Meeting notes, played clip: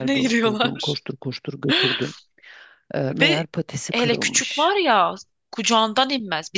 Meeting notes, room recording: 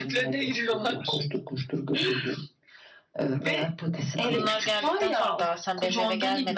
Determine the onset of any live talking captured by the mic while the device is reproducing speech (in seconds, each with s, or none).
4.3 s